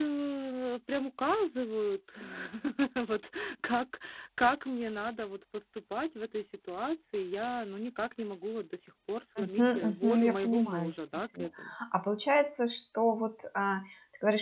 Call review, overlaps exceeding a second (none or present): present